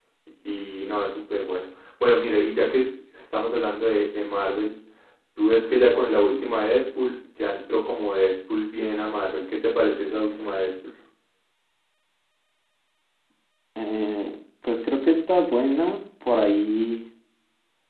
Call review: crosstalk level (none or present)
none